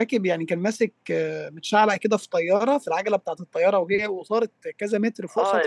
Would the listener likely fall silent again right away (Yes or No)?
No